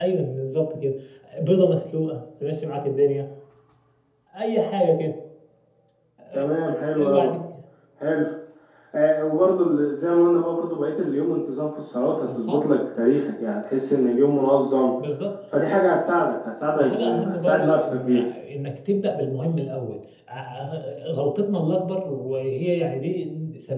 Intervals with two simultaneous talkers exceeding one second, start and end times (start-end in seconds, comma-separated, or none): 16.7-18.3